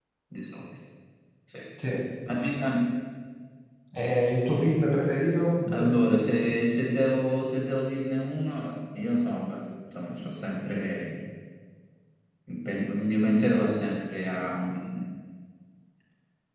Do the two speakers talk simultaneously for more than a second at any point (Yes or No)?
No